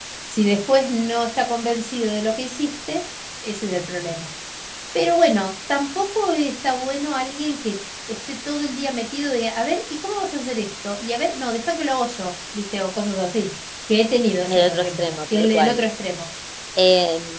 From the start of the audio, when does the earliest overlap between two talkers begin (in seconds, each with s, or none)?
14.5 s